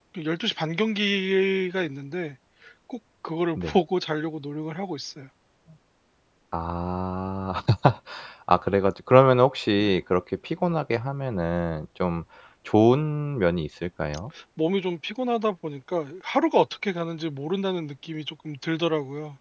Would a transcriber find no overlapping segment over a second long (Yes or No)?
Yes